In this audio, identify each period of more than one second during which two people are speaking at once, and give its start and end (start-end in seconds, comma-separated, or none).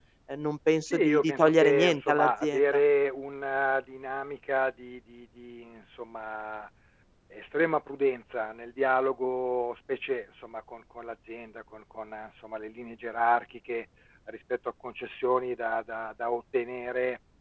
0.9-2.8